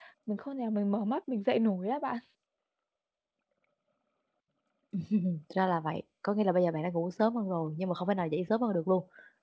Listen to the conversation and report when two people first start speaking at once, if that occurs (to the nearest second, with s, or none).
none